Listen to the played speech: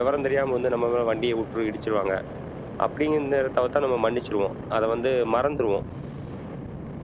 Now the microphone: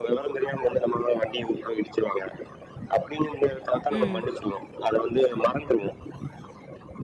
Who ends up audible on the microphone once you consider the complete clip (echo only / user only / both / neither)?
both